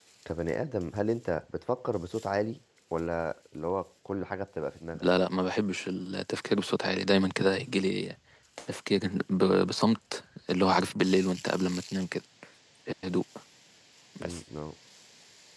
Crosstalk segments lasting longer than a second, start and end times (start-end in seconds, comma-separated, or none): none